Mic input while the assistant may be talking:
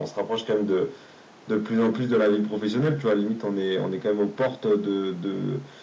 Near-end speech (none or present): none